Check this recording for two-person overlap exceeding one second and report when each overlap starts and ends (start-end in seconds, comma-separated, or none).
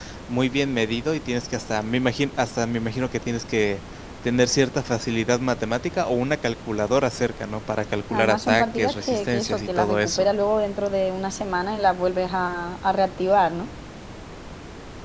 8.1-10.3